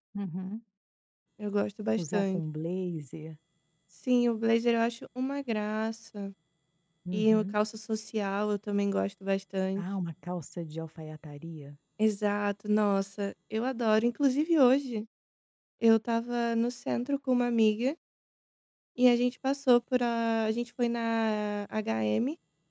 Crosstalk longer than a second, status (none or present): none